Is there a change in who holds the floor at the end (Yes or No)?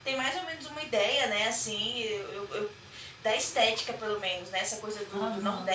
No